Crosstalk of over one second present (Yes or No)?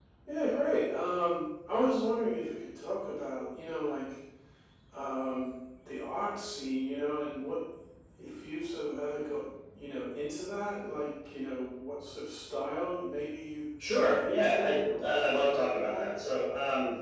Yes